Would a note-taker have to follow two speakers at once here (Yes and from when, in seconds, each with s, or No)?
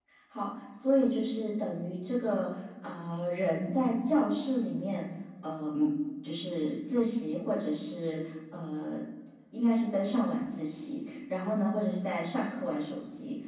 No